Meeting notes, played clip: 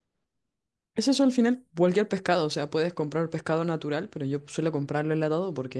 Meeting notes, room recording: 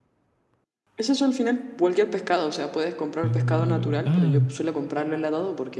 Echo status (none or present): present